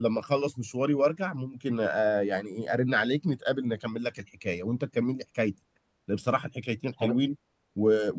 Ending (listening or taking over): listening